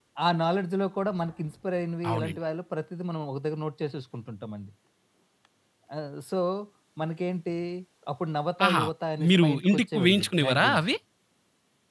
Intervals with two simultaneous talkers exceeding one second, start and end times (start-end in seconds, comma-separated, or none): 9.3-10.8